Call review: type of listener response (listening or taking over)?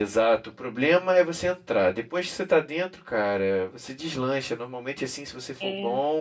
listening